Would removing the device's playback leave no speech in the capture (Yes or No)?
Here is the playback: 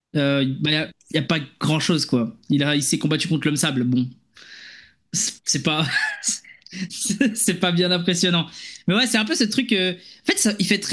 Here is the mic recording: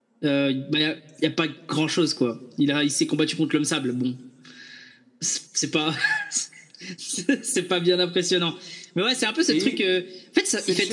No